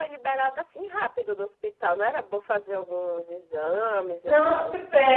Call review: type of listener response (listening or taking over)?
taking over